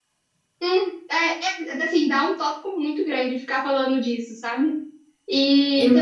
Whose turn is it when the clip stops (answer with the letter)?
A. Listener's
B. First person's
B